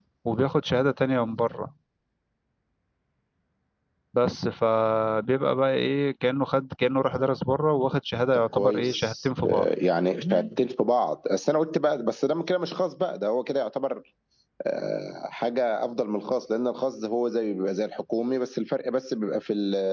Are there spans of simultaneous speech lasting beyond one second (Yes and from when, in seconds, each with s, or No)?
Yes, from 8.3 s